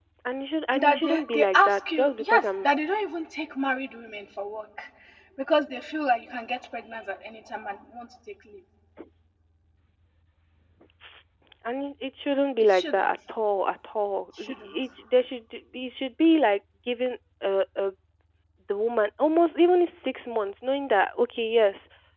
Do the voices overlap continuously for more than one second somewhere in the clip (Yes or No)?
Yes